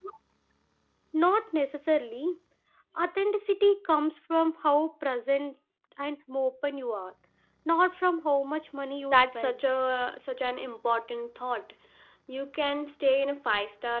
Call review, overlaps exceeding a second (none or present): none